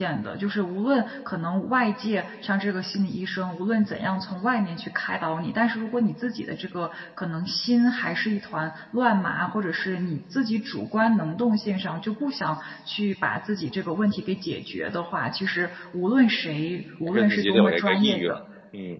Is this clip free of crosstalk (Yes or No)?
No